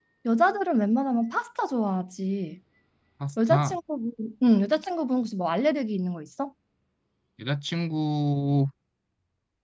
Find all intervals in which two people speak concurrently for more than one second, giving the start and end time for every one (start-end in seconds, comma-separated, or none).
none